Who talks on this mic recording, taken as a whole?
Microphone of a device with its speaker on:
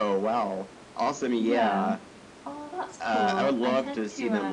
both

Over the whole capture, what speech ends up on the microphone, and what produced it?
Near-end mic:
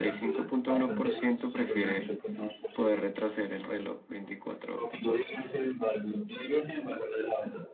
both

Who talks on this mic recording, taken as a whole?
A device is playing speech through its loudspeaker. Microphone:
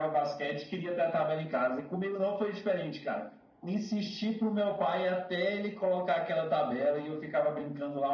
echo only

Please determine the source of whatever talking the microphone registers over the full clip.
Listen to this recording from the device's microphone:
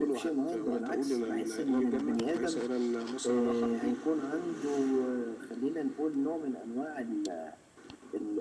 echo only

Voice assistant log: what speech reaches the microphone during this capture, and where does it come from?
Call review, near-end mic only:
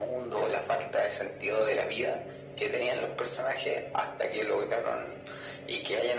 echo only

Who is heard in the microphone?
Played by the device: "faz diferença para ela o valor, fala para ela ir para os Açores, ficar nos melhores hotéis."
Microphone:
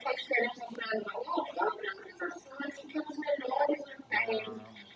both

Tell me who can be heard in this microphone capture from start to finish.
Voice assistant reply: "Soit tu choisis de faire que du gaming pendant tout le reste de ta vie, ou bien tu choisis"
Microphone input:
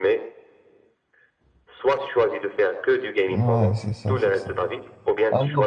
both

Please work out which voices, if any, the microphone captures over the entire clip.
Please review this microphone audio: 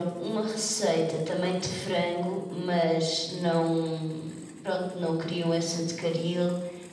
echo only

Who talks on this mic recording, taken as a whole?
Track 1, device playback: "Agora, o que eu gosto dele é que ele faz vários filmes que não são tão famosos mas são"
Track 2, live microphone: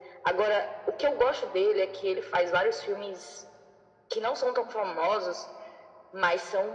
echo only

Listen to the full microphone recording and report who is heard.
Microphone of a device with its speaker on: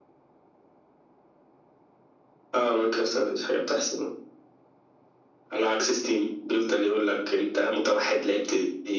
echo only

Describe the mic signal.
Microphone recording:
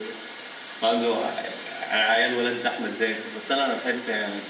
echo only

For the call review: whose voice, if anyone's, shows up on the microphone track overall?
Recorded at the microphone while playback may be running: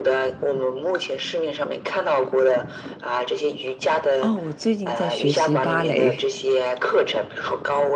both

